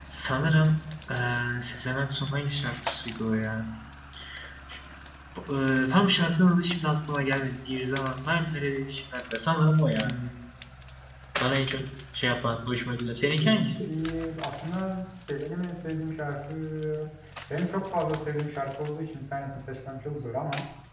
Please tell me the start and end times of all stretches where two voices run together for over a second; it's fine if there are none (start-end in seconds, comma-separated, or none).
none